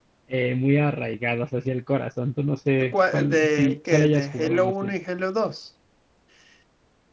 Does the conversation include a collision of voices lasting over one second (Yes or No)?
Yes